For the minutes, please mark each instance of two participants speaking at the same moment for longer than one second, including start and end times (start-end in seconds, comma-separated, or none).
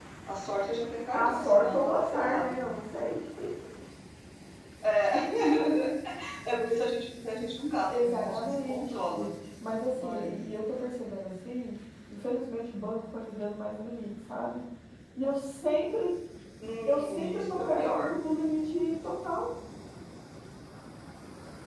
1.1-2.6, 7.8-9.3, 16.9-18.2